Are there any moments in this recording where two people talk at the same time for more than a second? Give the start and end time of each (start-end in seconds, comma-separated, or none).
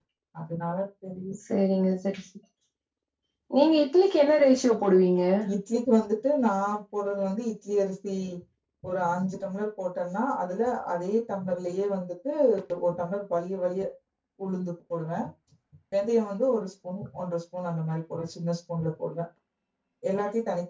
none